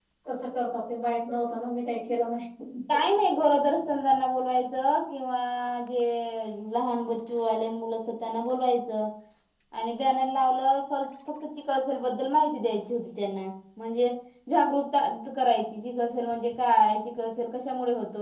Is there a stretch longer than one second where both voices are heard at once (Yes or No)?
No